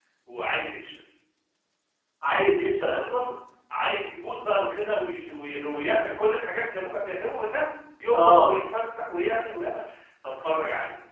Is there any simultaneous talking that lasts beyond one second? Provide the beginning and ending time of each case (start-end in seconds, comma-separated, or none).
none